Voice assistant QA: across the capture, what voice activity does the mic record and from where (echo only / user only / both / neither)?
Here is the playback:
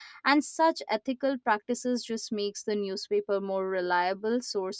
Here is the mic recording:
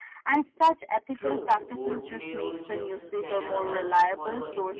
both